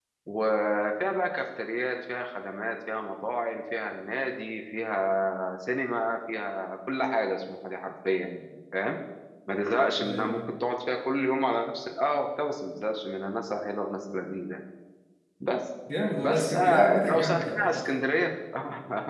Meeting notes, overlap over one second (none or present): present